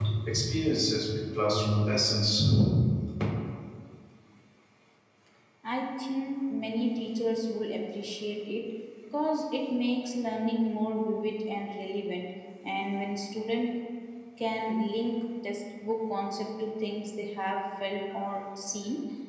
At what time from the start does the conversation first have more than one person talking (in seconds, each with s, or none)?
none